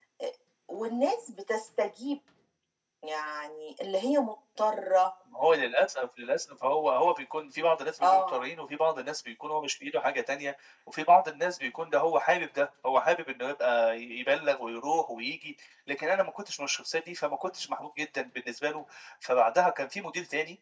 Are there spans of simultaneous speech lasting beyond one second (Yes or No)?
No